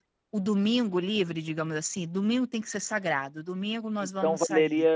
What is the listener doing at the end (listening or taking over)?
taking over